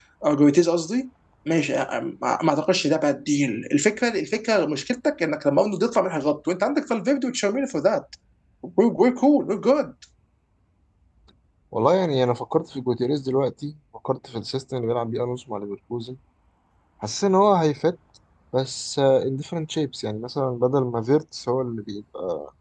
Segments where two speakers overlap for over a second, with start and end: none

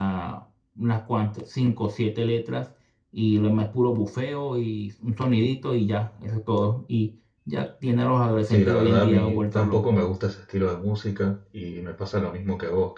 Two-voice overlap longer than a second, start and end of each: 8.5-10.0

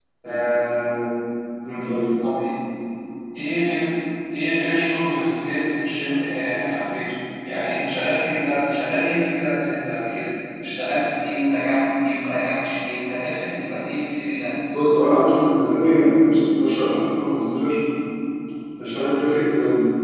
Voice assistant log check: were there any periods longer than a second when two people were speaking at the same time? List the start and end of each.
none

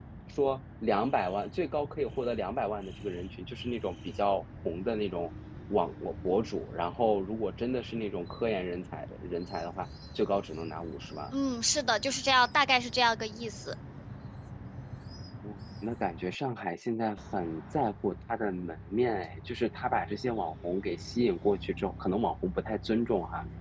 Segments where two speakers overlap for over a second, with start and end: none

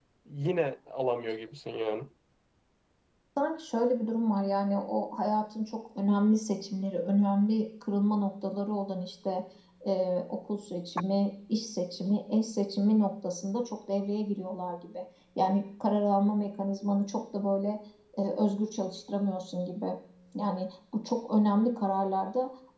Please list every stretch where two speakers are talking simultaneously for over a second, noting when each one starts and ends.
none

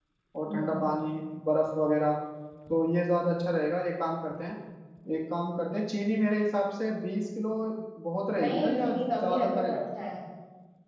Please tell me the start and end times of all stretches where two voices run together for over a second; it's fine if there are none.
8.4-9.8

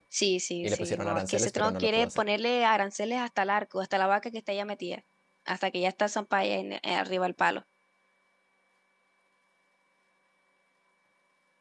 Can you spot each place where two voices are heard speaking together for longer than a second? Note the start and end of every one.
0.6-2.2

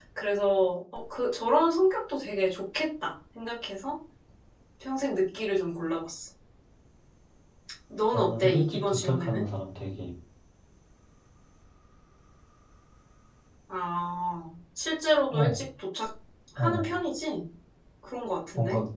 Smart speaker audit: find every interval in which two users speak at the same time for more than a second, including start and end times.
8.1-9.4

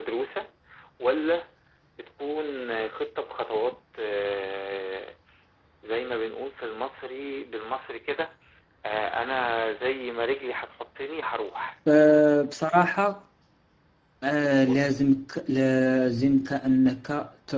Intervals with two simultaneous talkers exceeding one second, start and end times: none

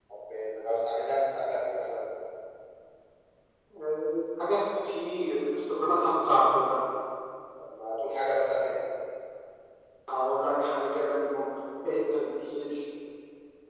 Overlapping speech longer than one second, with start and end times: none

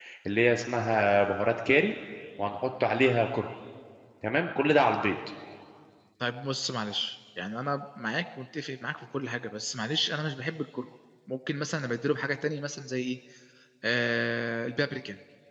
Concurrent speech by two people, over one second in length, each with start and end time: none

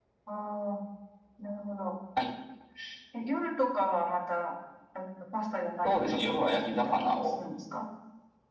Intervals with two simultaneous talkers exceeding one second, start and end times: 5.8-7.2

